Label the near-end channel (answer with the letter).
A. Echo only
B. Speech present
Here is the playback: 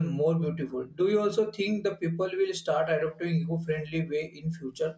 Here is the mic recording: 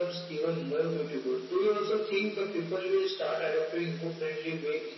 A